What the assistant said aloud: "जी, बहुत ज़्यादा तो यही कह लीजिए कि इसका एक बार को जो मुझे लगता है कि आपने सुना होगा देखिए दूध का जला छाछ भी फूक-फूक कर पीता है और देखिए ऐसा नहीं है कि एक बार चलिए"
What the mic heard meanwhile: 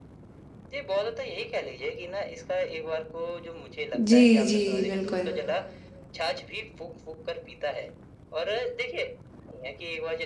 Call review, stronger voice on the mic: user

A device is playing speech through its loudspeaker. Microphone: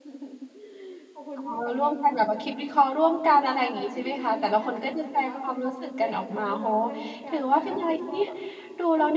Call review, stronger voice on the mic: user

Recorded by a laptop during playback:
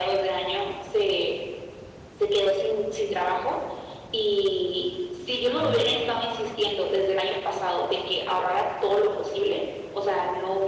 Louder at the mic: echo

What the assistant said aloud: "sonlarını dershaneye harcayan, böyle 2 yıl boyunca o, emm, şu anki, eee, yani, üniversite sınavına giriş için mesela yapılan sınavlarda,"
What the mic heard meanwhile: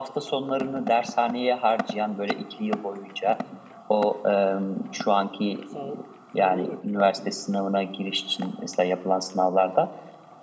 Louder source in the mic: echo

